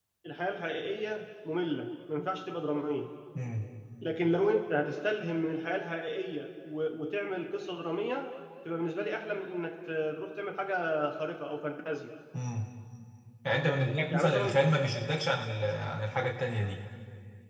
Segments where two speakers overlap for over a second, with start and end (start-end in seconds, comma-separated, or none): none